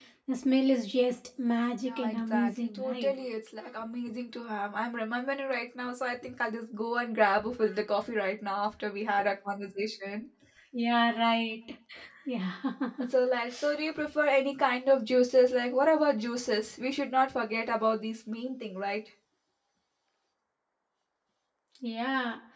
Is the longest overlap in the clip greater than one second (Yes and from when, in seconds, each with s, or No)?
Yes, from 1.8 s